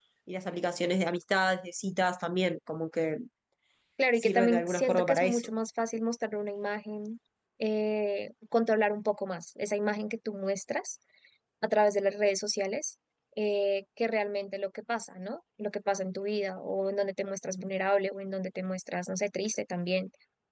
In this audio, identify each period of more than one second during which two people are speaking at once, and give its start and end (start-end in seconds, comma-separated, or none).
4.2-5.5